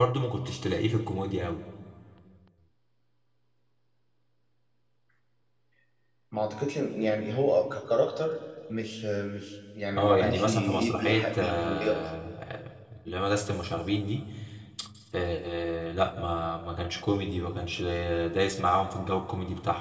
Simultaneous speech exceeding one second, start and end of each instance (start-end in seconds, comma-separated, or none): 10.0-12.0